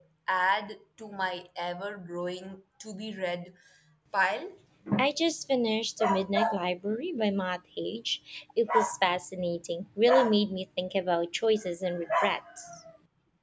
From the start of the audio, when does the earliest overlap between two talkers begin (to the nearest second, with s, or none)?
none